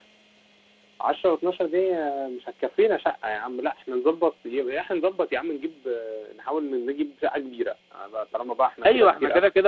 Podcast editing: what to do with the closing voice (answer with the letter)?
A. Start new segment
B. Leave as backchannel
A